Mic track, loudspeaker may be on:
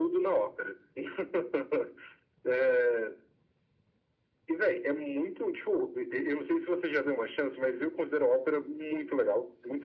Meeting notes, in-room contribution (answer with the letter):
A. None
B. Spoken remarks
A